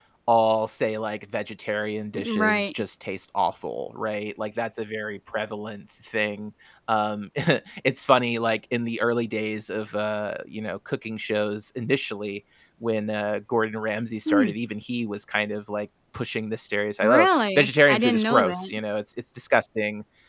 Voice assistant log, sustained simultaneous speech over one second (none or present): present